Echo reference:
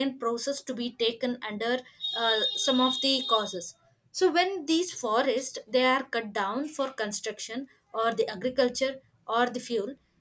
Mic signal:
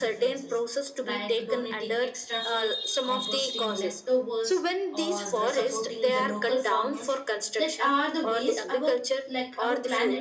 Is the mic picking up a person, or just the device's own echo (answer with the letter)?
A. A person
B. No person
A